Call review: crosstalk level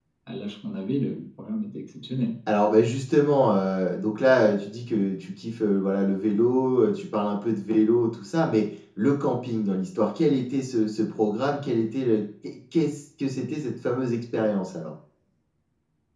none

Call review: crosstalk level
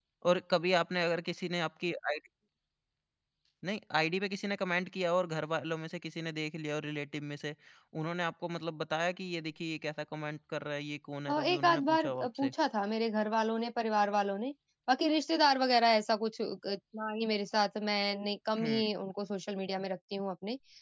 present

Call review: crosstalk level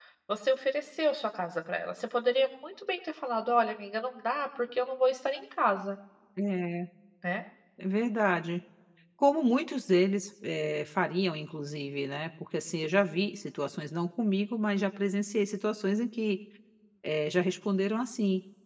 none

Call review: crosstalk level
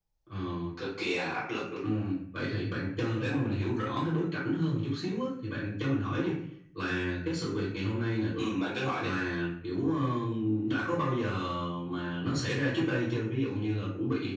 none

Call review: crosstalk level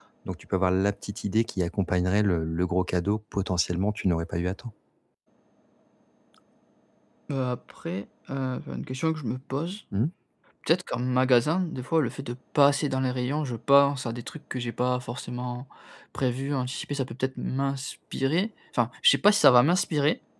none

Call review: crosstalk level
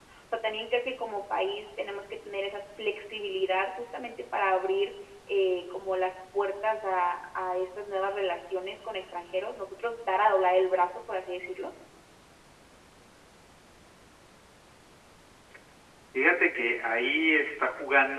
none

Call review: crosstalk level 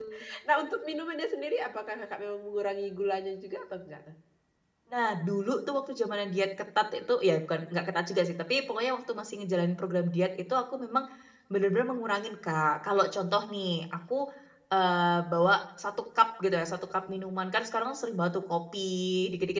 none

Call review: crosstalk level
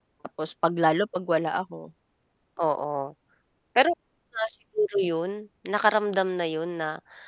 none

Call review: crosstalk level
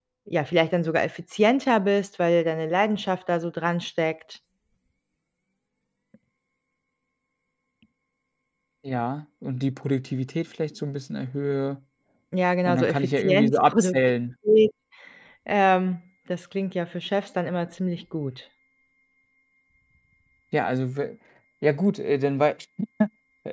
present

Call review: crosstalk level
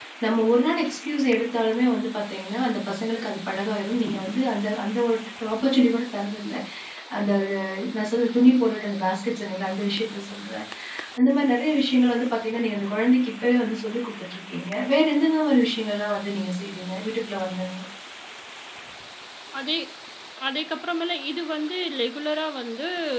none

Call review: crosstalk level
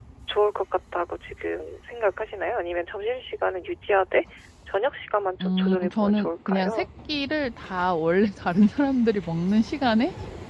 present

